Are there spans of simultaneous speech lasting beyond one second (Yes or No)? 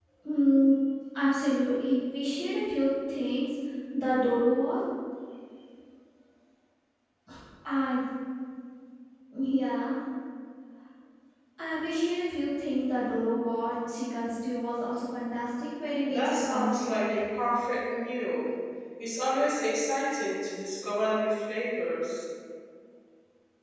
Yes